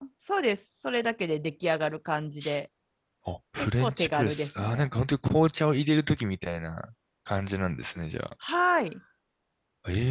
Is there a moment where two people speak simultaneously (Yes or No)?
Yes